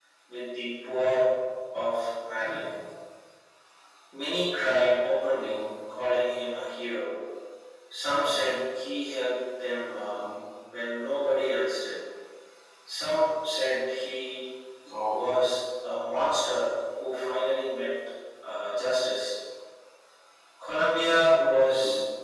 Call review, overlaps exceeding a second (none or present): none